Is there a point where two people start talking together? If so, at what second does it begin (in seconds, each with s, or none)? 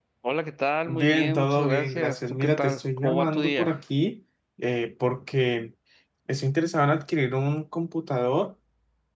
0.9 s